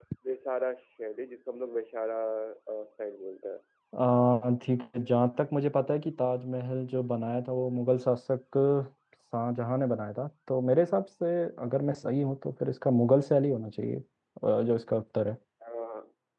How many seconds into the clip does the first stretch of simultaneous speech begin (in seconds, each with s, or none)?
none